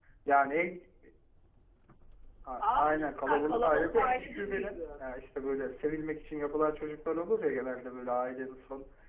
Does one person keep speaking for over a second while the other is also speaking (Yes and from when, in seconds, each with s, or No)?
Yes, from 2.6 s